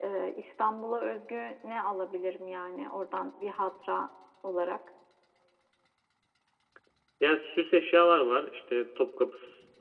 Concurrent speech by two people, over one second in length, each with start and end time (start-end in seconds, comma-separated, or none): none